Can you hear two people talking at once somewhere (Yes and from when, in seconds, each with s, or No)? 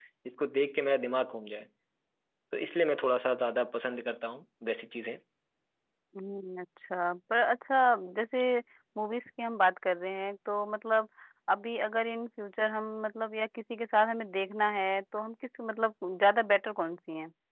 No